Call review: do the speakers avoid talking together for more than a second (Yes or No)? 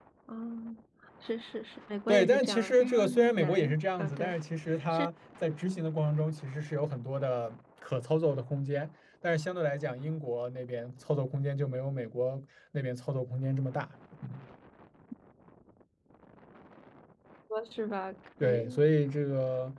No